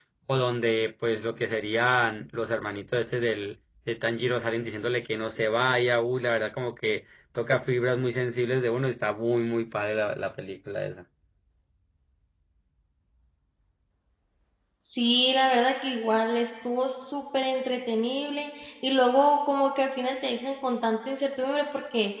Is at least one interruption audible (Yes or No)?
No